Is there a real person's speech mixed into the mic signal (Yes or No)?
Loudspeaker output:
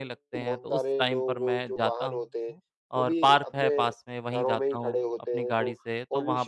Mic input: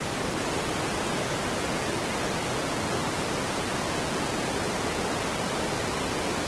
No